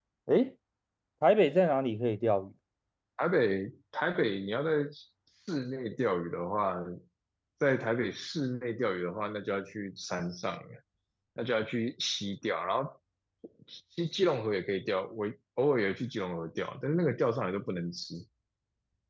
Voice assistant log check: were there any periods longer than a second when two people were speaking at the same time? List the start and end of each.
none

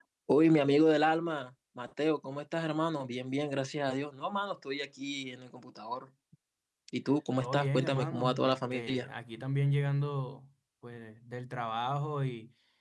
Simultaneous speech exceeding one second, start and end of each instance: 7.4-9.1

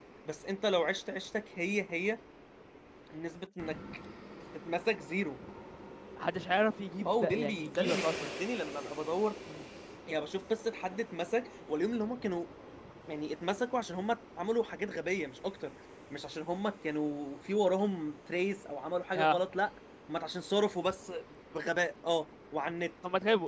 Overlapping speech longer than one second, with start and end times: 7.0-8.3

